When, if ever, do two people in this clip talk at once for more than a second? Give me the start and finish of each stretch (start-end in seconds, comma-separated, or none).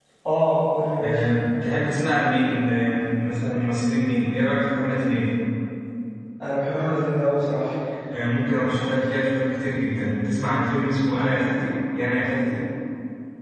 none